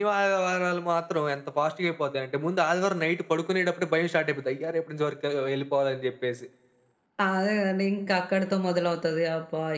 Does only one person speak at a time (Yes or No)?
Yes